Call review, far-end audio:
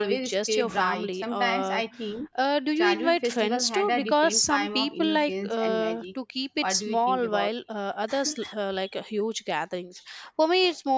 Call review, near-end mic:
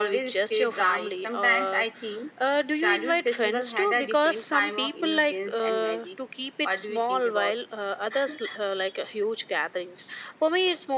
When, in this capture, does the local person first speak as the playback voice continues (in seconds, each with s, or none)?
none